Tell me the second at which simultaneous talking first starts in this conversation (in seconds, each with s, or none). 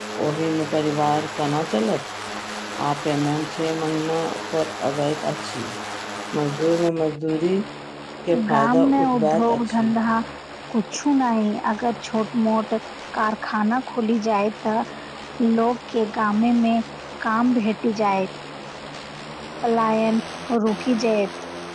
8.5 s